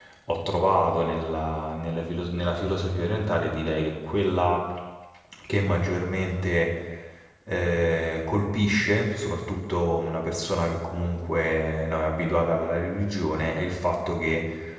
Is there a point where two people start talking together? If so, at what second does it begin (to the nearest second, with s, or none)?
none